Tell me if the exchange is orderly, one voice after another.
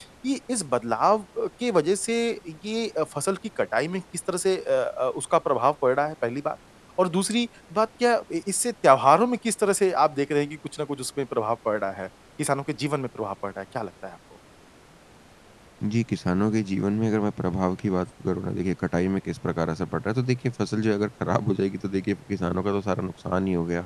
Yes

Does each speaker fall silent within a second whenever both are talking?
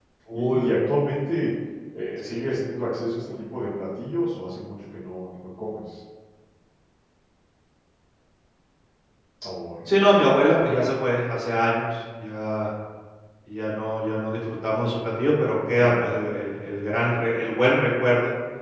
Yes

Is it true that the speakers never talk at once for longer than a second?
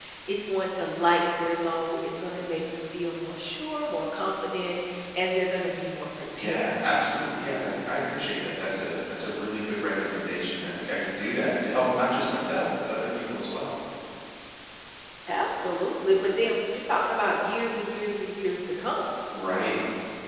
Yes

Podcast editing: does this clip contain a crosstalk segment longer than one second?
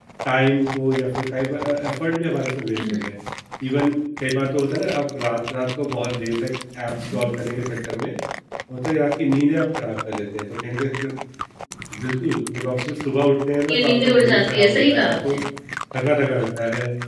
Yes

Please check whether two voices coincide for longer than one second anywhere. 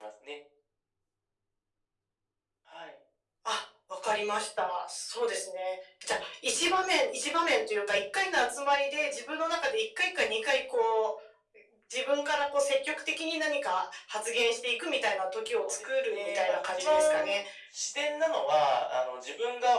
Yes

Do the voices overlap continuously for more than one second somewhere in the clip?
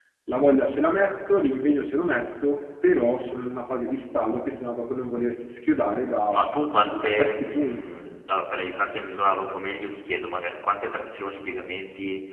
Yes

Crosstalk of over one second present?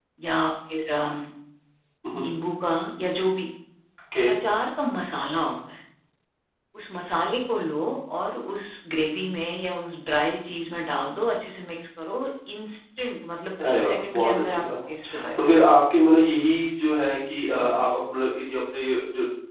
Yes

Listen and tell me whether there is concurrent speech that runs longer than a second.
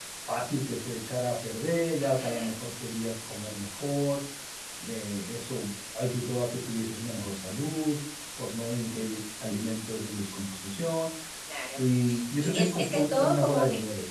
Yes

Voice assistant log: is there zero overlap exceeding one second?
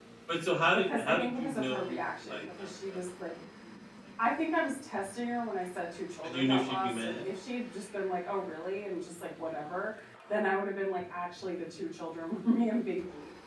No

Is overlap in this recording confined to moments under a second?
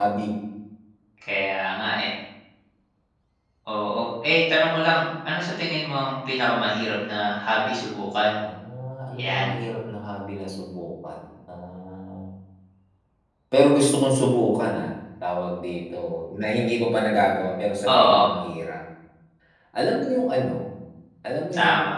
Yes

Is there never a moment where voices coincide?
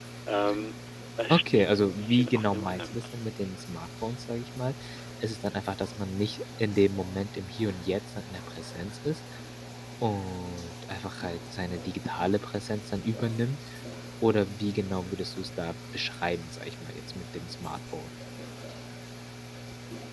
No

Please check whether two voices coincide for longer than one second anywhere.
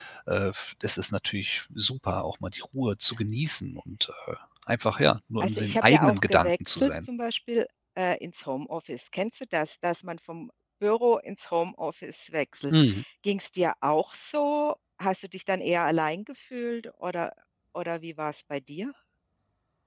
Yes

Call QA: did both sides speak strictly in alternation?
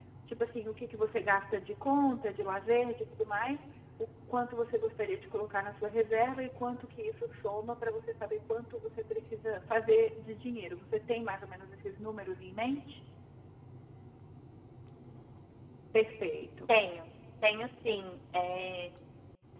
Yes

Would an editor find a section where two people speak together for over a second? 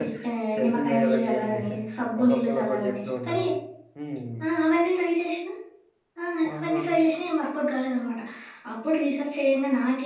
Yes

